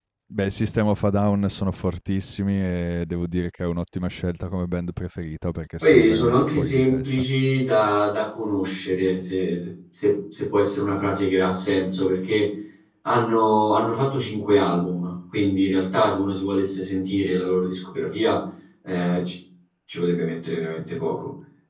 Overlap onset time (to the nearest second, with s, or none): 6 s